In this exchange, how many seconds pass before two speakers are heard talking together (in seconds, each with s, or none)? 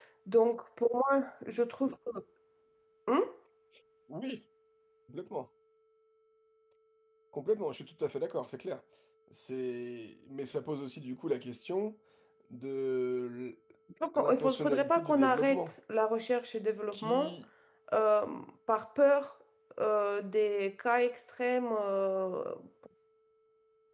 14.2 s